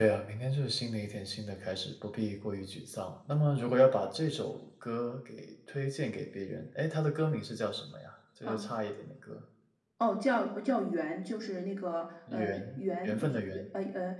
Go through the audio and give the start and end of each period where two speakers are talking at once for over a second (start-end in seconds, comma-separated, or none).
12.3-13.6